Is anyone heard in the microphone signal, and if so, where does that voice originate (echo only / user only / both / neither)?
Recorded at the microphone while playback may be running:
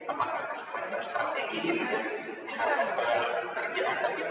both